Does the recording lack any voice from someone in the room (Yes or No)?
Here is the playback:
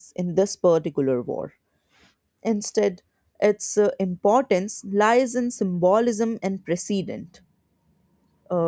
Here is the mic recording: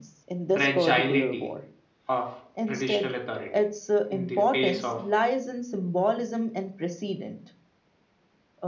No